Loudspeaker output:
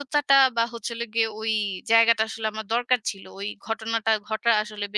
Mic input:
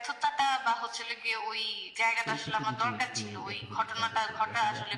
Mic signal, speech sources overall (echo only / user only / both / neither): both